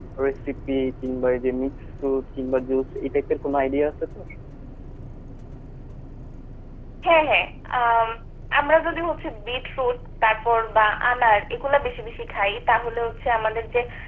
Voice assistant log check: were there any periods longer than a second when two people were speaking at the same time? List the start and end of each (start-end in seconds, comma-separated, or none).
none